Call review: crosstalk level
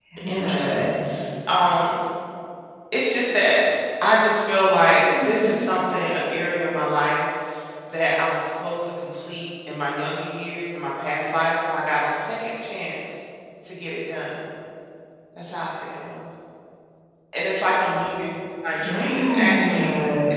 present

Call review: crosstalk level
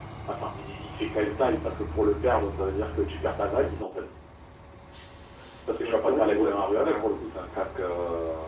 present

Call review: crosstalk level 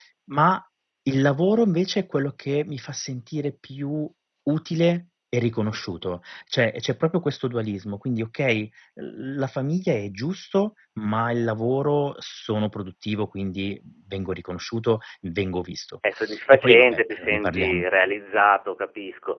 present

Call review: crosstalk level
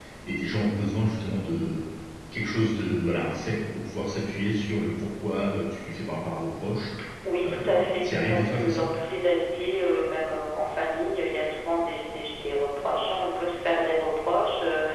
present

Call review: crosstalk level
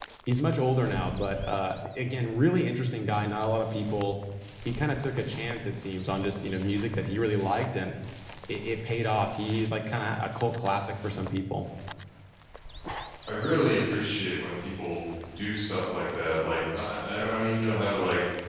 none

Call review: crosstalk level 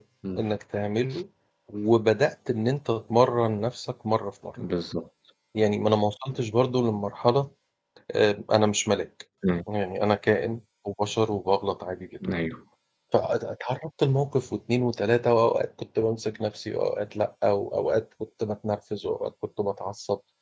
none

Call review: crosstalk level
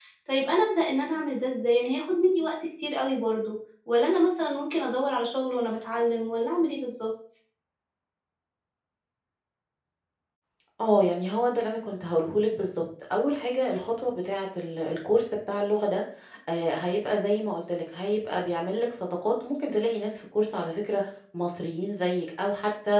none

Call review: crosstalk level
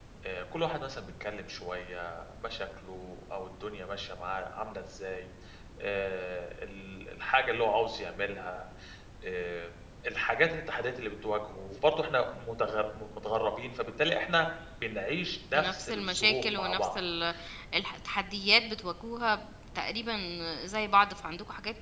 present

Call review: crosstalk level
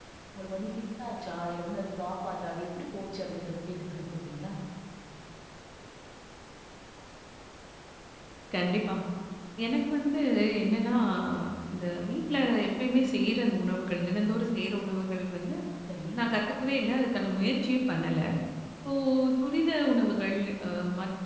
none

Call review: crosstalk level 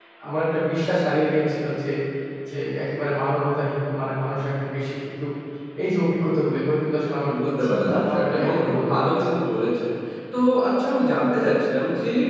present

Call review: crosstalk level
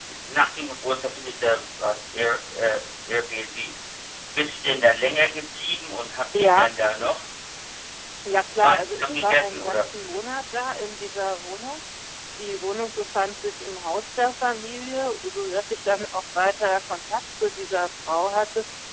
present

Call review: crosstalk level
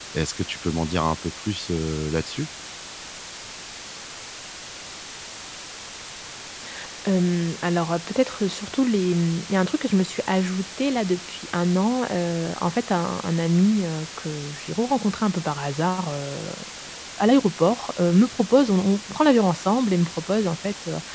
none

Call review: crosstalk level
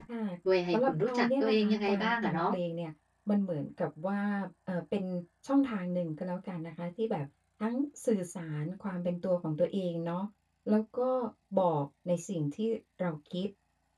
present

